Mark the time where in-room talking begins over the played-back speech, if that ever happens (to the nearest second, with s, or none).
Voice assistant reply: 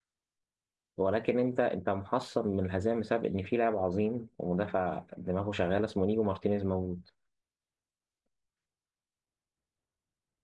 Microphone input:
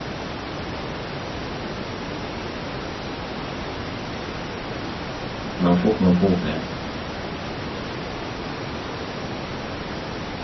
6 s